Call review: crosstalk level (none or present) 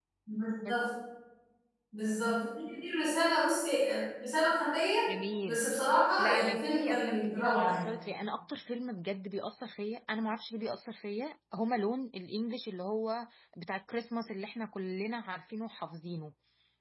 present